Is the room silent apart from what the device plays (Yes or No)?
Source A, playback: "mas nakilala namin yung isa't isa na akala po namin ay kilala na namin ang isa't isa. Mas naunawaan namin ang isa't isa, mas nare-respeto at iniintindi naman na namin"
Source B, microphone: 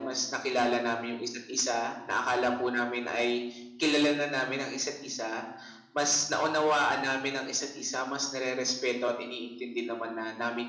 Yes